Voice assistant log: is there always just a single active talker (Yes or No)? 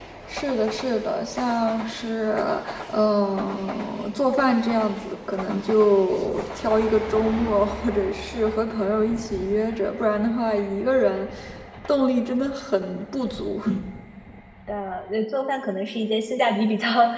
Yes